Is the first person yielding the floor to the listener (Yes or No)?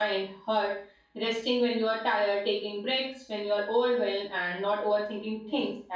No